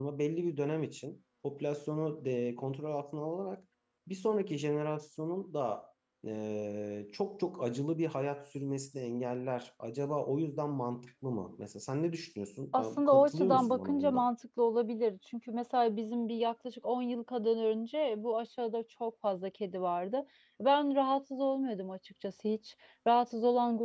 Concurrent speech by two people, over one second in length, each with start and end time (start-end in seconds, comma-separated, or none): 12.7-14.3